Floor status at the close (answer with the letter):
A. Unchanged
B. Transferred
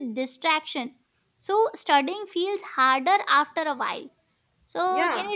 A